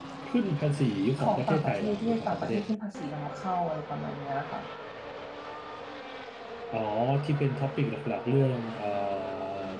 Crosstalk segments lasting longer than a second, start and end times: 1.2-2.6

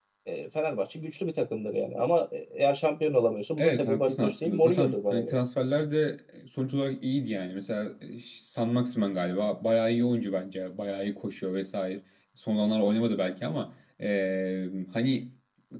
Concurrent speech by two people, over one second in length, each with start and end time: 3.6-5.4

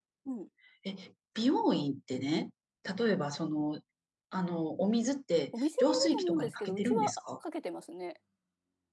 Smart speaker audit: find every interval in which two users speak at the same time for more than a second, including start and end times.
5.6-7.2

